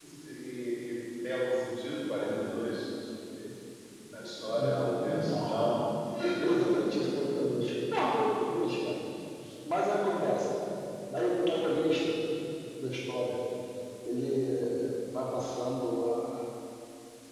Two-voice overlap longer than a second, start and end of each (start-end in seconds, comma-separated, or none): 4.4-5.6